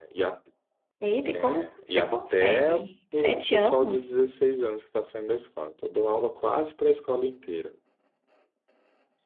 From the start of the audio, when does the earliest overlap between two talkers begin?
1.3 s

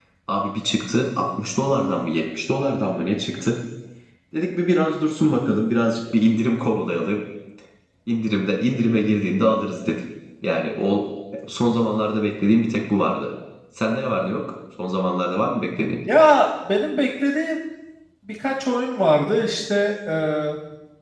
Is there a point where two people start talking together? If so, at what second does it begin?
none

